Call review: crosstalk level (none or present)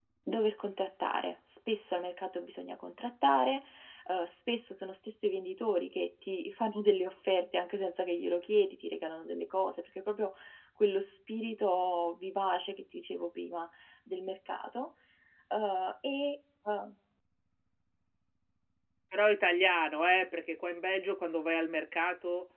none